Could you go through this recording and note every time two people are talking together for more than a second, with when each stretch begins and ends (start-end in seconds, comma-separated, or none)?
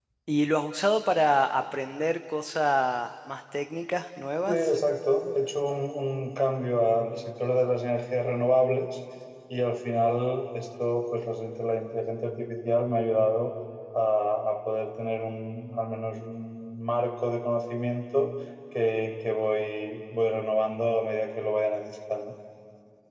none